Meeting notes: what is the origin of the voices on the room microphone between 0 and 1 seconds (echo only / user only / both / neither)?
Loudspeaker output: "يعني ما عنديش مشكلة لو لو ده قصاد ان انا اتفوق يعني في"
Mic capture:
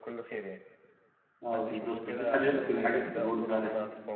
echo only